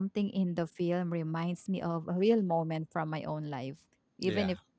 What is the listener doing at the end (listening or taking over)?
listening